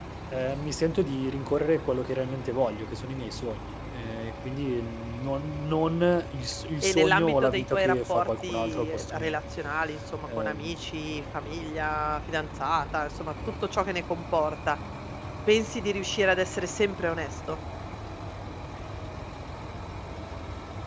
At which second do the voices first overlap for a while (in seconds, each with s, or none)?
6.8 s